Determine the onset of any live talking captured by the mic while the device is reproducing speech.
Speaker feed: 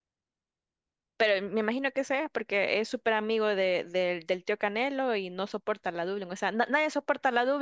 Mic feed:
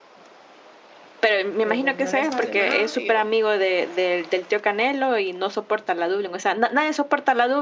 1.6 s

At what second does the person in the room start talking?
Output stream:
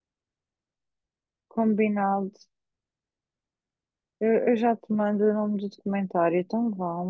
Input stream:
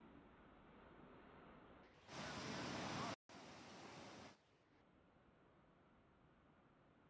none

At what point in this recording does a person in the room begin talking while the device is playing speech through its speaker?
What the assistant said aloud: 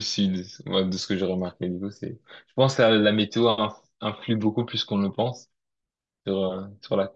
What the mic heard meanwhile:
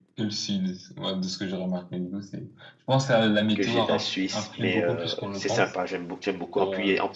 3.5 s

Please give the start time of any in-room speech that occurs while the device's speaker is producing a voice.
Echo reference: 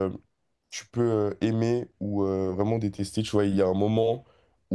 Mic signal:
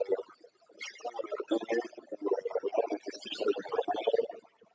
none

